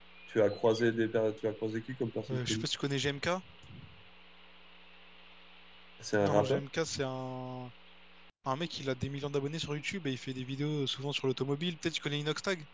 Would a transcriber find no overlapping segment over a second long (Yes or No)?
Yes